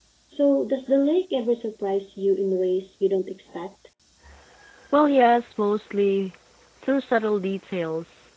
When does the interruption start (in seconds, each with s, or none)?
none